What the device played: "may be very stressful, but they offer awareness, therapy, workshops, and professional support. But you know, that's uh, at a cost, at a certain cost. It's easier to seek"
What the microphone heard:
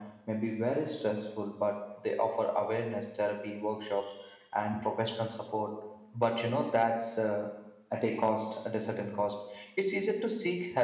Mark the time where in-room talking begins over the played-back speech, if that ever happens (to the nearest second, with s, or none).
none